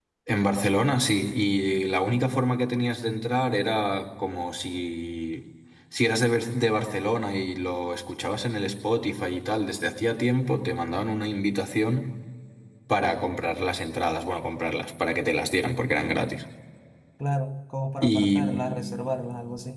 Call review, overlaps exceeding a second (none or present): none